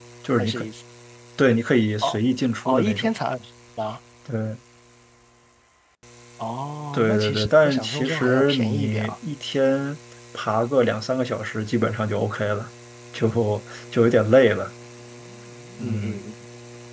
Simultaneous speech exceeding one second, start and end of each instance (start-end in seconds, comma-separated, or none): 6.9-9.1